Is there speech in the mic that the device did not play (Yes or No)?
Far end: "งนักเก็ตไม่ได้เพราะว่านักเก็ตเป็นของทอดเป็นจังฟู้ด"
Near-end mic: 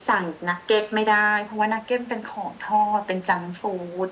No